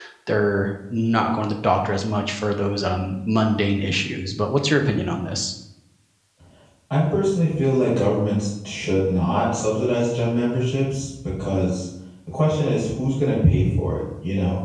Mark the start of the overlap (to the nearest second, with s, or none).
none